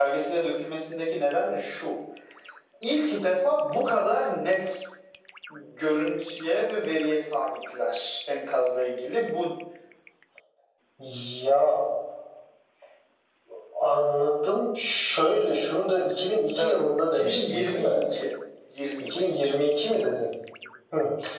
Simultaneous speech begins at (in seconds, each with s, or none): 16.6 s